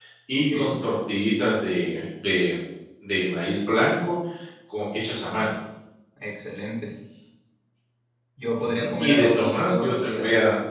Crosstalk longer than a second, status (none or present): present